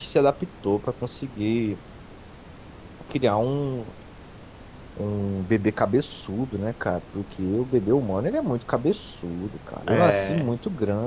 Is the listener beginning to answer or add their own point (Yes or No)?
No